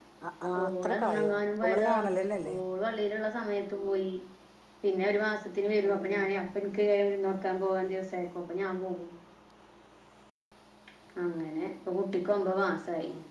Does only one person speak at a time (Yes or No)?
No